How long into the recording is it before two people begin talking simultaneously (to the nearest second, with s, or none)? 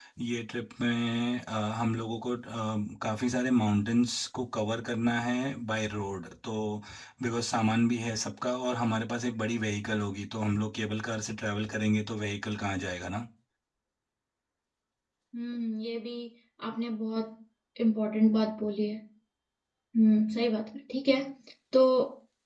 none